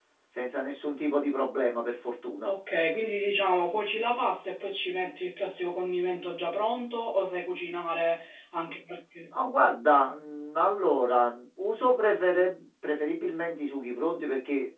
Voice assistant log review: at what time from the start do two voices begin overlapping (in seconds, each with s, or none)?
none